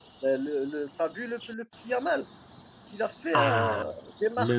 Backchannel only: No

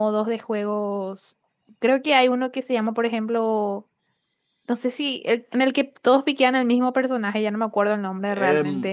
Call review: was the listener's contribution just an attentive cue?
No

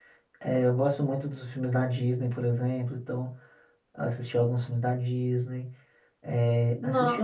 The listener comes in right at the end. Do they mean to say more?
No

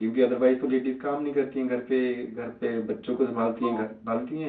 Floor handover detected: No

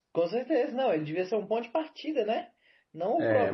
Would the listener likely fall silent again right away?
No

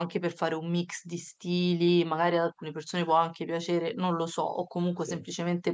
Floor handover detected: No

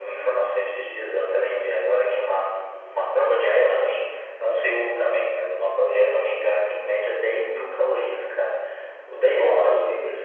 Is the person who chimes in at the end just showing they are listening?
Yes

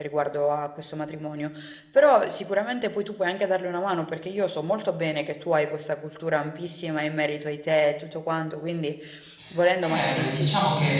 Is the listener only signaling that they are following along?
No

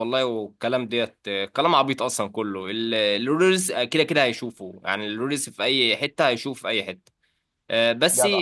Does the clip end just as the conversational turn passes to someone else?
No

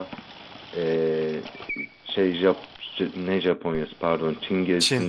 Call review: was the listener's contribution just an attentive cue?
Yes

